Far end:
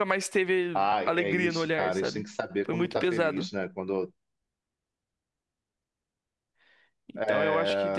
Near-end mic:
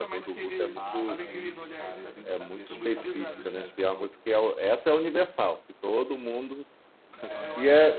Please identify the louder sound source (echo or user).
user